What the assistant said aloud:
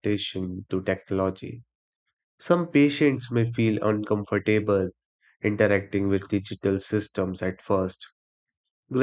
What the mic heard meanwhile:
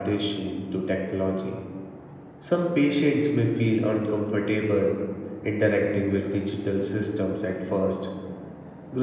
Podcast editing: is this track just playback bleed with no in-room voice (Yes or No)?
Yes